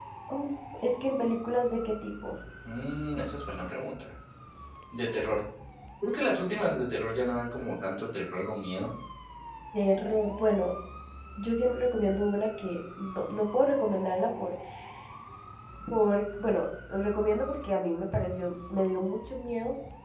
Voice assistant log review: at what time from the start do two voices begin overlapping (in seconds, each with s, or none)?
none